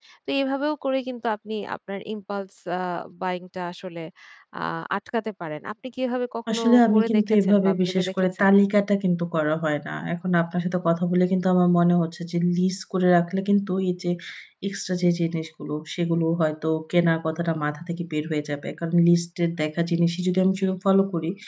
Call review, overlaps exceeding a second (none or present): present